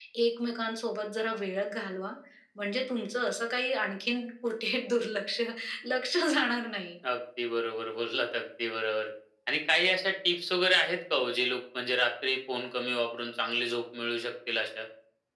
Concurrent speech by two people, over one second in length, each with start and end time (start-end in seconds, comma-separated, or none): none